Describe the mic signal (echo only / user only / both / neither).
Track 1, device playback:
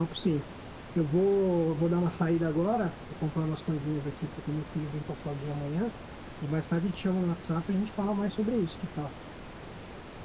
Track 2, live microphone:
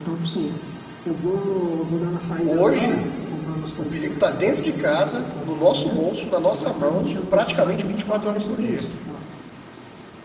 both